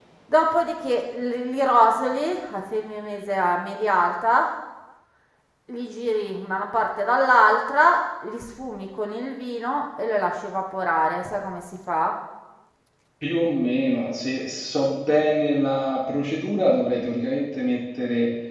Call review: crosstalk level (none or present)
none